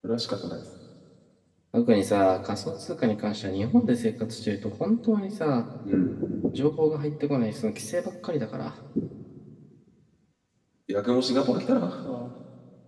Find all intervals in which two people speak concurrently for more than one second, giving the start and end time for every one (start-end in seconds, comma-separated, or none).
none